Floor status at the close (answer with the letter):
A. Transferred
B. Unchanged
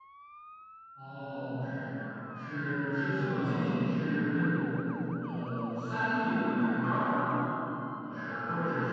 B